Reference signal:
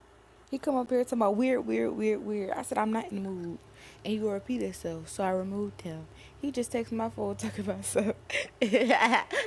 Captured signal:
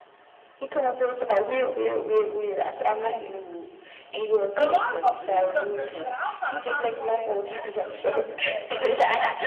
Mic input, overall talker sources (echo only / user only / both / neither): both